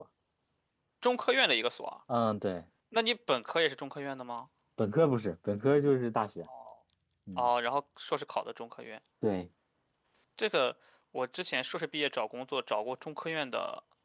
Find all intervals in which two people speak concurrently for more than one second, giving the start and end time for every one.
none

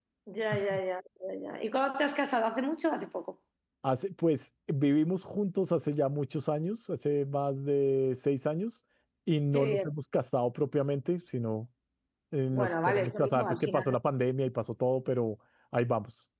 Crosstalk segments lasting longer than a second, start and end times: 12.5-13.8

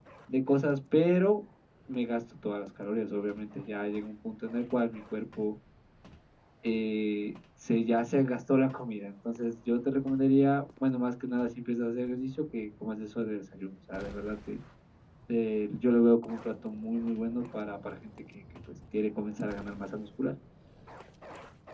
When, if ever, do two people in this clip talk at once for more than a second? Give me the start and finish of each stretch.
none

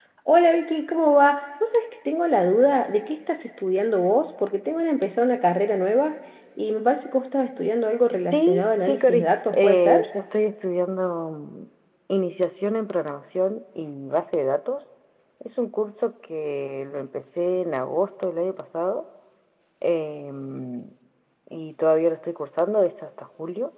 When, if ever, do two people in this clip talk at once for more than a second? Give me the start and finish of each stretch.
8.3-10.1

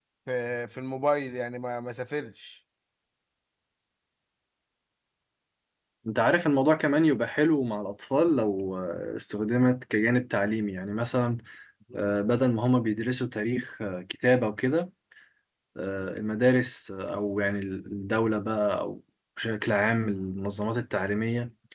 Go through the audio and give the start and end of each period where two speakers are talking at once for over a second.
none

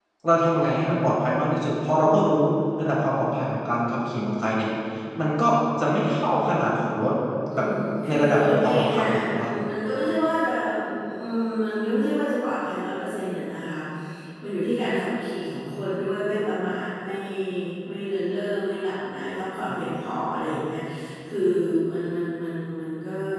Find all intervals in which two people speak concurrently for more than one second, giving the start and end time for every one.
8.1-9.5

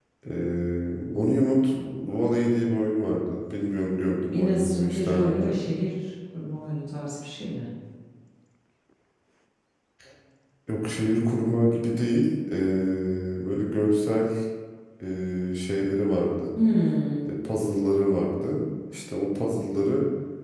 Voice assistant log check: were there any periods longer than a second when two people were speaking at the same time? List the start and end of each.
4.3-5.5

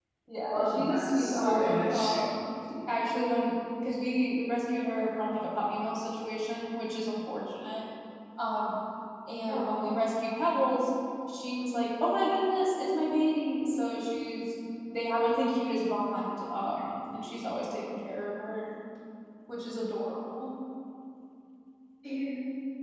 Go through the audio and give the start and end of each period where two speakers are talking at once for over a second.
0.5-2.1

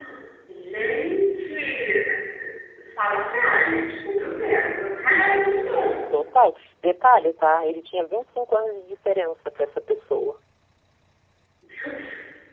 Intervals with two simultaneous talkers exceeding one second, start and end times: none

